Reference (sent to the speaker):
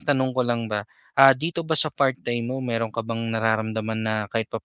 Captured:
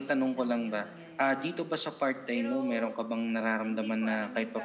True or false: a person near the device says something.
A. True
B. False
A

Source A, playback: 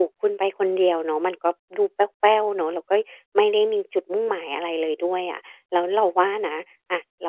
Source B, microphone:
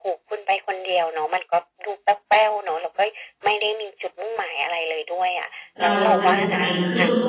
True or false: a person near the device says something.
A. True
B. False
A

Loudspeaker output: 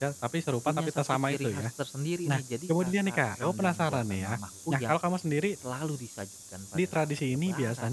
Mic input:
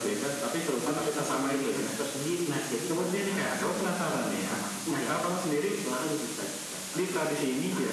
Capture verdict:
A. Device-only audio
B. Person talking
A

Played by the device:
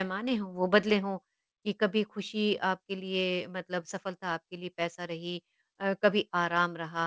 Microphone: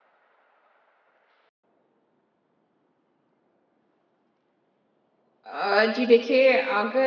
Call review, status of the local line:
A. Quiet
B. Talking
B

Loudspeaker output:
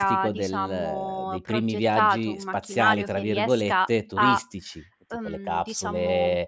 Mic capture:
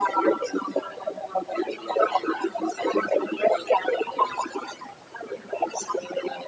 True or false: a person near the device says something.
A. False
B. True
A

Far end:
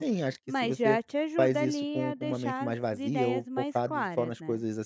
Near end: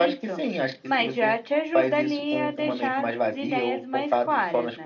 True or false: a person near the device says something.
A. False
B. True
A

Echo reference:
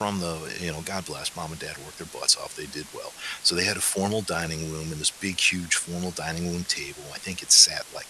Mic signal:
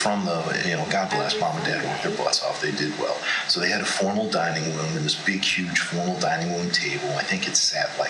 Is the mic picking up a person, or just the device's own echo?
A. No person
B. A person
B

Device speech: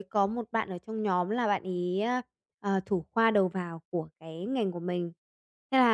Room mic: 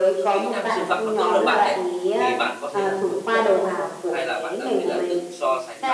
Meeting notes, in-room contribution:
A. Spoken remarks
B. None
A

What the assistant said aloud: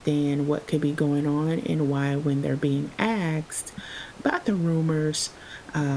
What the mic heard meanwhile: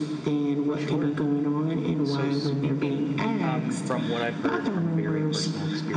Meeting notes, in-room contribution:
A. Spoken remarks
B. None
A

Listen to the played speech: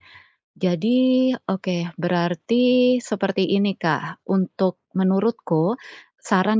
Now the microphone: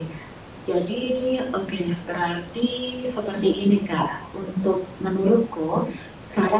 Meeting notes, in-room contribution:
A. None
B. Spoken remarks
A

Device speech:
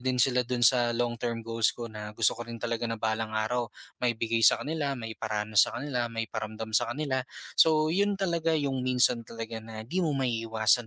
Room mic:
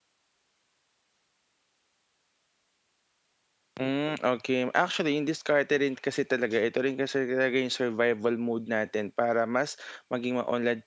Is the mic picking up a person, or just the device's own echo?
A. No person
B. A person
B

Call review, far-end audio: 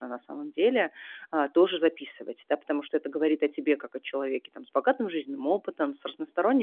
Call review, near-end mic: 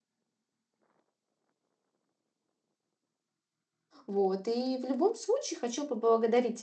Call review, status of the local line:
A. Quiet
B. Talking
B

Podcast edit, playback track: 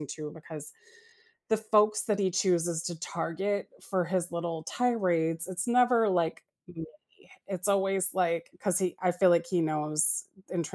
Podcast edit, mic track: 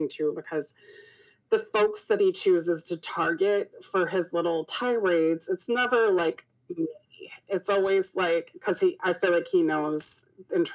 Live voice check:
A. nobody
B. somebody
A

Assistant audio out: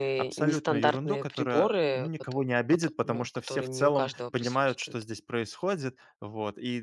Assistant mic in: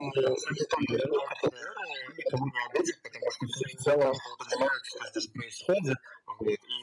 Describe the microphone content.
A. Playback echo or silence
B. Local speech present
A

